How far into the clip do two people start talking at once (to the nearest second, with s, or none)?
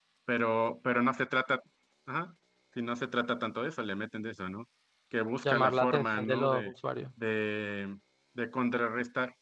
5 s